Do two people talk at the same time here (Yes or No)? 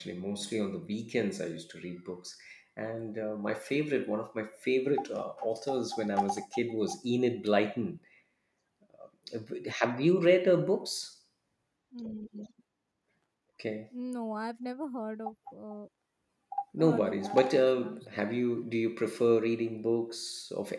Yes